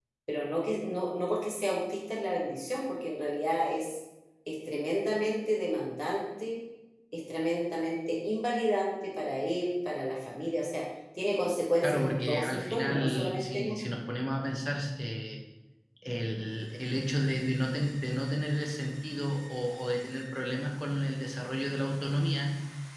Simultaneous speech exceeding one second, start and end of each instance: 11.8-13.8

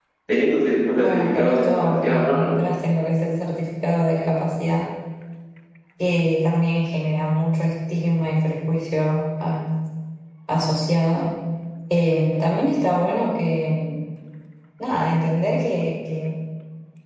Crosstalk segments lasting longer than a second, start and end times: 0.9-2.5

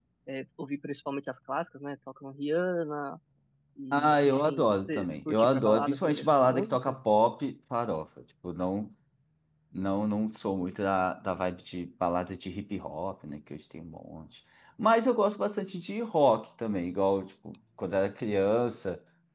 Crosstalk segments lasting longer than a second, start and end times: 3.9-7.0

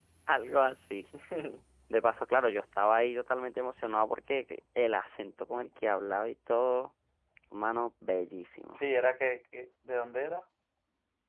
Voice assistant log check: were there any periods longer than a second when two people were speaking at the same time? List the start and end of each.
none

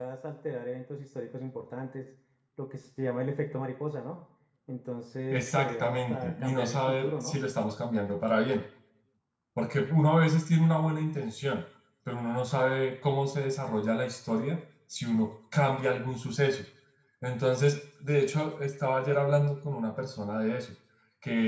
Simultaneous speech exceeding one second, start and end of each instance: 5.3-7.4

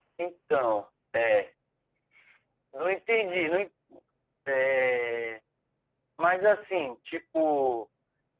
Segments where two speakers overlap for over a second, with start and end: none

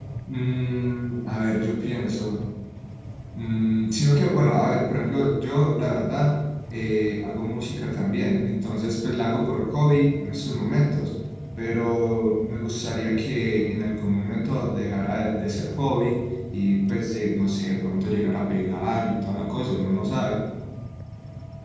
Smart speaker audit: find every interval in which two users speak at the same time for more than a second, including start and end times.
none

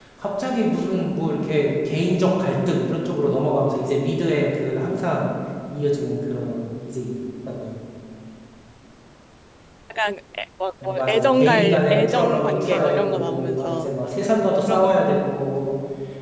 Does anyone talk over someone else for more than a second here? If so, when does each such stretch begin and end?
10.8-13.9

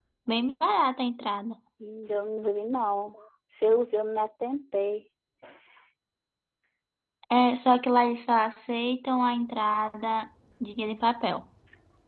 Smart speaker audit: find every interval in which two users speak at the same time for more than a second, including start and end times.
none

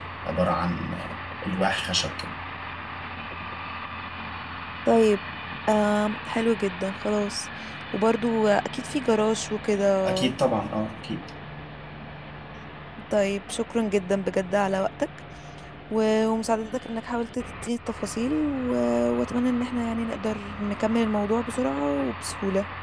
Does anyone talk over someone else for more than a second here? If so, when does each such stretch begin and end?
none

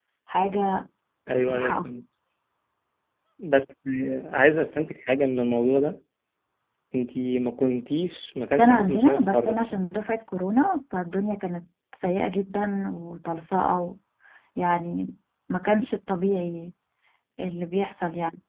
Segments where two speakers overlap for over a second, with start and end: 8.6-9.8

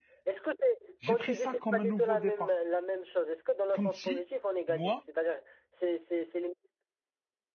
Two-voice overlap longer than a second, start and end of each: 1.1-2.5

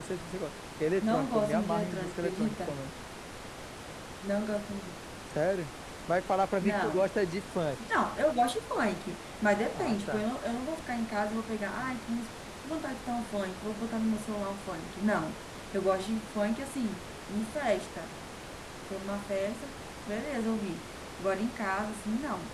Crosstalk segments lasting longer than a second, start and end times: 1.0-2.8

